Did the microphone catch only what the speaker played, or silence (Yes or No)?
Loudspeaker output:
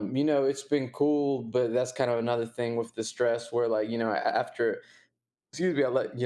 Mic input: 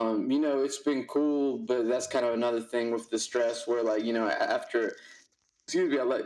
Yes